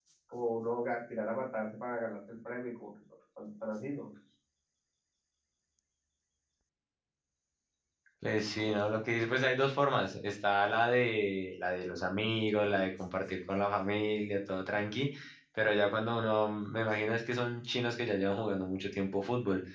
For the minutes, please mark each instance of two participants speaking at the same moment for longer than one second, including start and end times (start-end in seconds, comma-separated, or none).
none